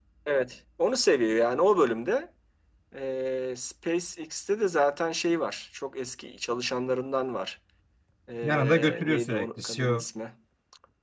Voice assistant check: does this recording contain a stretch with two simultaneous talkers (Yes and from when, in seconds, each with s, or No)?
Yes, from 8.4 s